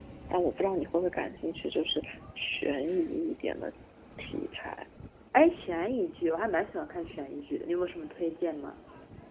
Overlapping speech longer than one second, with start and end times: none

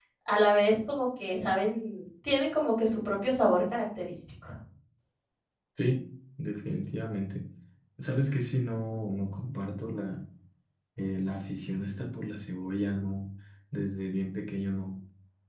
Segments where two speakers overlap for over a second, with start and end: none

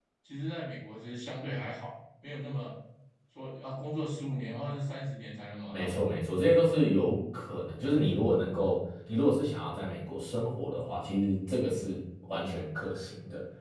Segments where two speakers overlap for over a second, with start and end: none

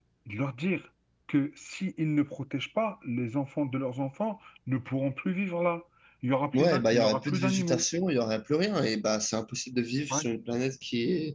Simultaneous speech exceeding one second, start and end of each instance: 6.5-7.8

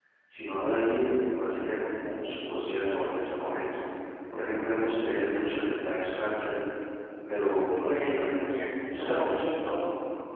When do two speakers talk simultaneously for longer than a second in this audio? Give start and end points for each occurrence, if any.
7.8-9.2

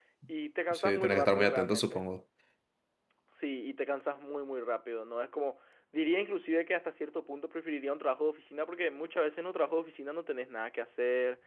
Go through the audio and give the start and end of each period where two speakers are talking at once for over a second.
0.7-2.0

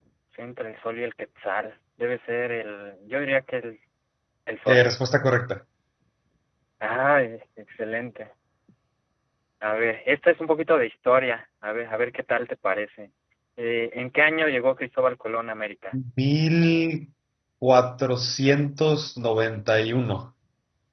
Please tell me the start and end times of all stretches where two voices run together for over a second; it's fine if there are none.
none

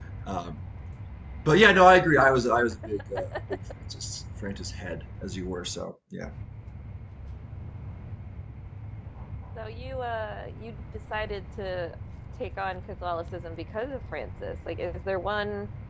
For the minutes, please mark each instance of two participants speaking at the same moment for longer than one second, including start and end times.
none

